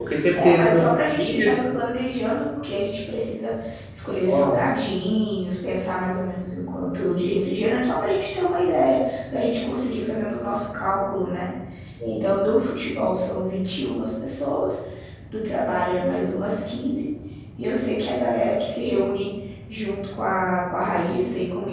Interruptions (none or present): present